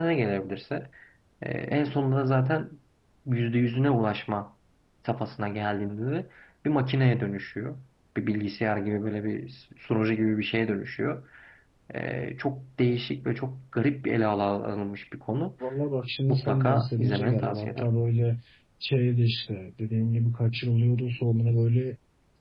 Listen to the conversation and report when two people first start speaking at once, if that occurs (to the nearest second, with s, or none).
16 s